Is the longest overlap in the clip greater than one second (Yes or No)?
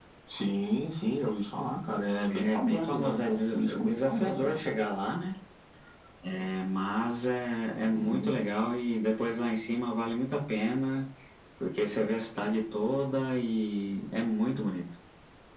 Yes